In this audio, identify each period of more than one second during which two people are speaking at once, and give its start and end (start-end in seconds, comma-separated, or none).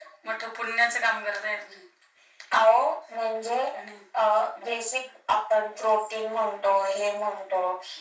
none